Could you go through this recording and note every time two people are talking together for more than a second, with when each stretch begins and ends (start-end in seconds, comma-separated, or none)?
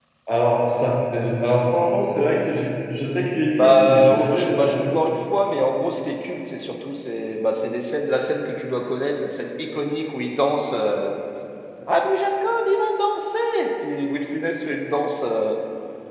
3.5-4.9